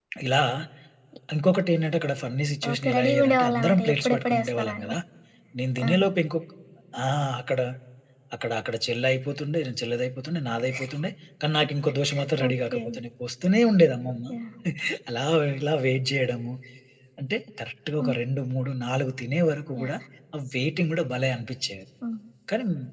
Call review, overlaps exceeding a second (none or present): present